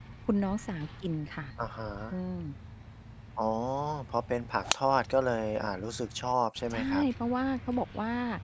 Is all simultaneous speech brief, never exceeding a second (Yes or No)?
Yes